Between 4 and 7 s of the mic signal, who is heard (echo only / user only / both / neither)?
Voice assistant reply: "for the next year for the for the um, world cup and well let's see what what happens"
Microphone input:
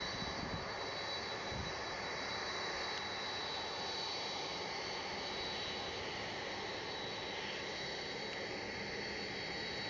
neither